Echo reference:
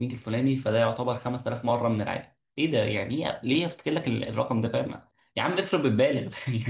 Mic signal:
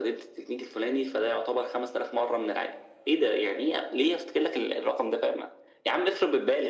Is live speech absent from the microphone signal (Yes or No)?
Yes